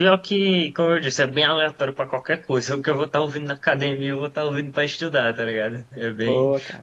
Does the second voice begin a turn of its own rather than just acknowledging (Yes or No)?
No